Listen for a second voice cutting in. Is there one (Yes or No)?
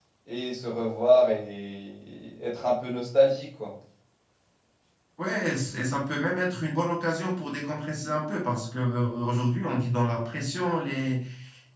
No